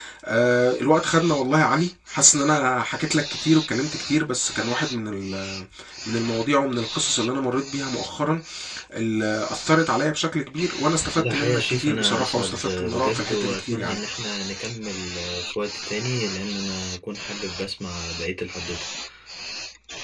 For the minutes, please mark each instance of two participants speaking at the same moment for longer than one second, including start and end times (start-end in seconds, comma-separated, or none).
11.1-14.0